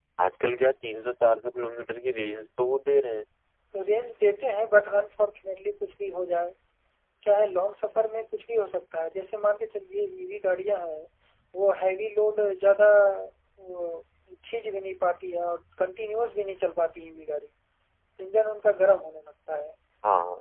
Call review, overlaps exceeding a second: none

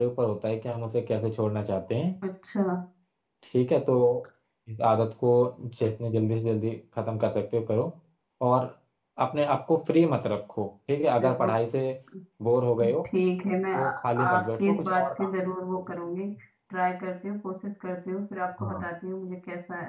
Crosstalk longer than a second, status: present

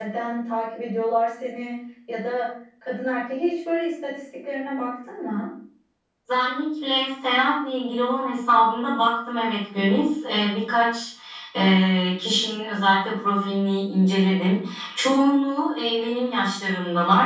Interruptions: none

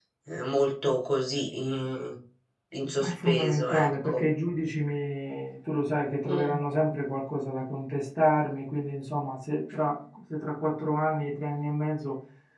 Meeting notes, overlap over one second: present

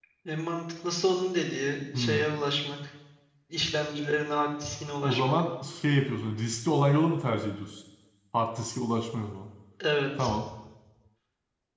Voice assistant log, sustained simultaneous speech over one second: none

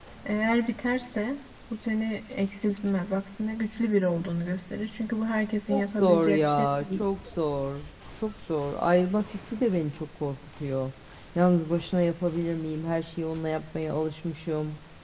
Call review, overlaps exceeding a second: present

